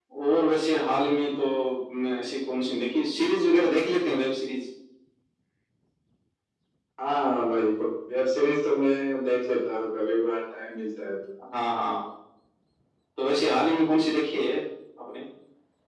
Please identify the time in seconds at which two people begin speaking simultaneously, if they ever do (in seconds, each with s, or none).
none